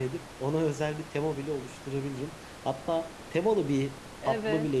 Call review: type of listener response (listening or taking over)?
listening